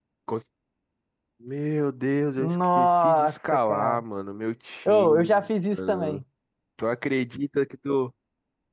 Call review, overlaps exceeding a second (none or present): present